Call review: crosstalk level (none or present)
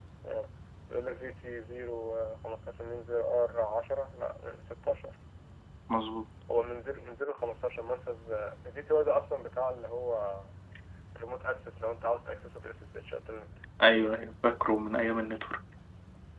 none